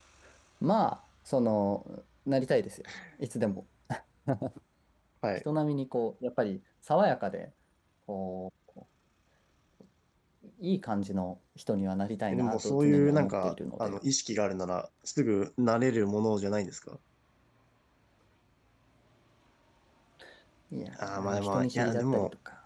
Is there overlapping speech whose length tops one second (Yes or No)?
Yes